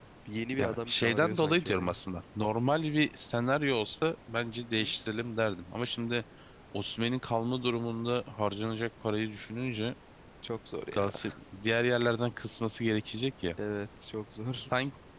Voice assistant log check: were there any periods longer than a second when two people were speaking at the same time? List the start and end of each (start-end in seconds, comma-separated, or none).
0.6-2.0